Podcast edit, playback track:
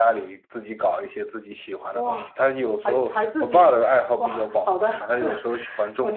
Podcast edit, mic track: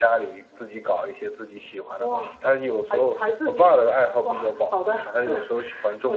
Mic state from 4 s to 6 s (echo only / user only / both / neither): echo only